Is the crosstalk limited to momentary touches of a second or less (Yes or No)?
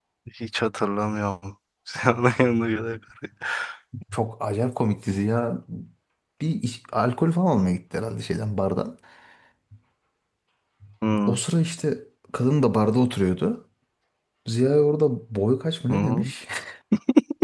Yes